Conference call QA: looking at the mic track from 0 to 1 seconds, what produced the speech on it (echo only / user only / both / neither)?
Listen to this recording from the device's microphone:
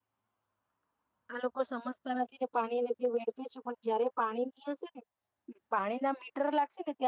neither